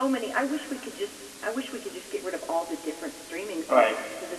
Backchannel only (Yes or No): No